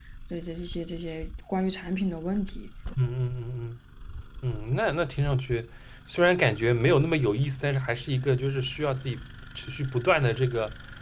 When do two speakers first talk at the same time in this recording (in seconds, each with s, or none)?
none